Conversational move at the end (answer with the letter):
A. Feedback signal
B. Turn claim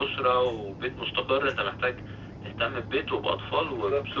A